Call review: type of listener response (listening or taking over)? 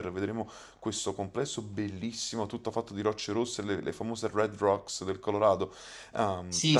taking over